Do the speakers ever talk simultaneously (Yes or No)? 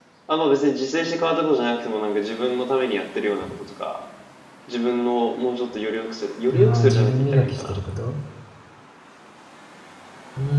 Yes